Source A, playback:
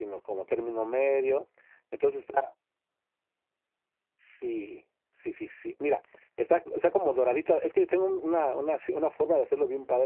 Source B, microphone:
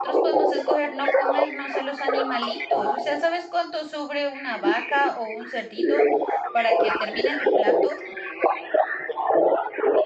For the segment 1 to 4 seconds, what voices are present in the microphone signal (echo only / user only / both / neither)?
both